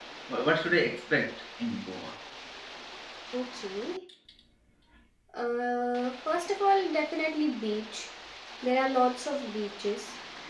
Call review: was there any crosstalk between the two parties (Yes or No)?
No